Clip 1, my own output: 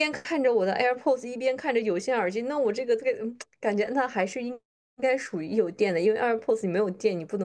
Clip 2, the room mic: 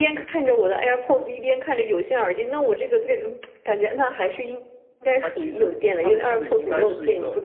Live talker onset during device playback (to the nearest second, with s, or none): 5 s